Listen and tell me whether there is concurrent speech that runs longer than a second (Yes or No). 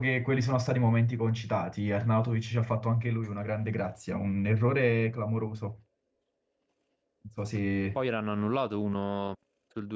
No